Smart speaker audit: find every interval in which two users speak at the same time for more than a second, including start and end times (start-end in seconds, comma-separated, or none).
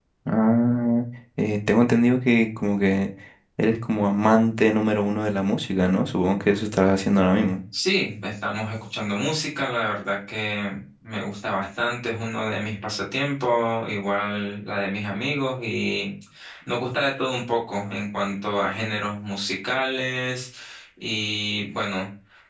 none